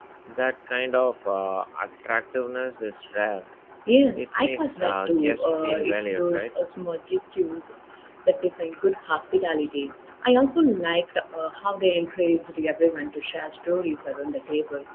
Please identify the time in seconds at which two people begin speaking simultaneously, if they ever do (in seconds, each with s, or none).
4.2 s